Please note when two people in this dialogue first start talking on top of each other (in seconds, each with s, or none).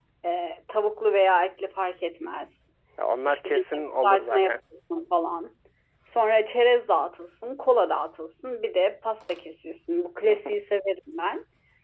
3.3 s